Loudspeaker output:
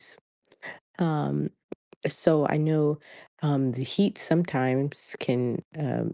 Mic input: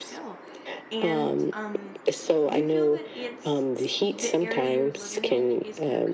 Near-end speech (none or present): present